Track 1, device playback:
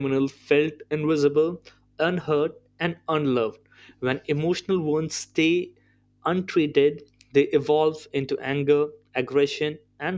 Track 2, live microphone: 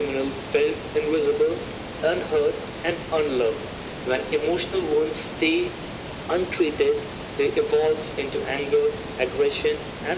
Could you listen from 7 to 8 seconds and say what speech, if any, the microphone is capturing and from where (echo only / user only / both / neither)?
echo only